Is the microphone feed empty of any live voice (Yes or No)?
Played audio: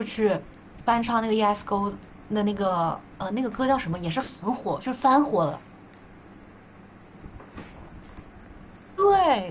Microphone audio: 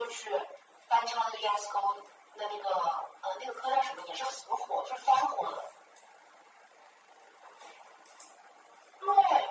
Yes